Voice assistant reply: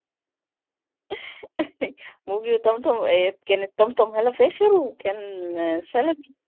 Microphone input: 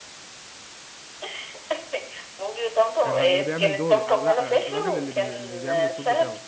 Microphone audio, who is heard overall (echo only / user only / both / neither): both